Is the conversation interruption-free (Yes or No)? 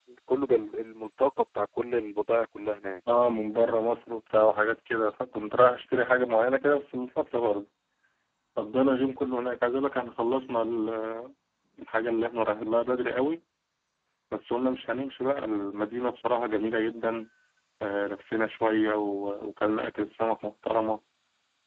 Yes